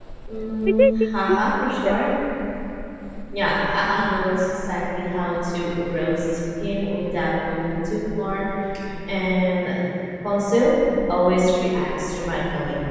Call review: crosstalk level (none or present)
present